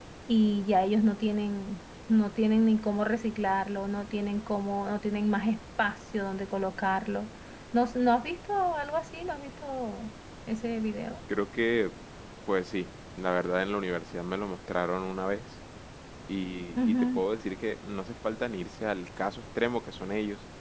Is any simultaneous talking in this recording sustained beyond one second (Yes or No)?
No